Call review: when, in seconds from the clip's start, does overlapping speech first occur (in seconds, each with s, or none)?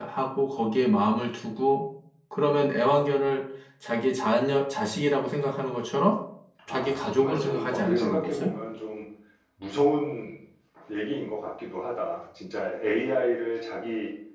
6.7 s